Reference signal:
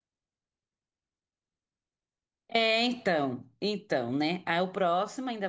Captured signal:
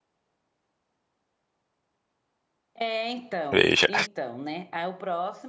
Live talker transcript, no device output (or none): Veja.